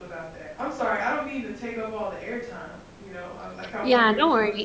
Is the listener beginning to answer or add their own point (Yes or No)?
Yes